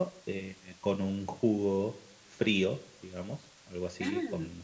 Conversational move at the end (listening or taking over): listening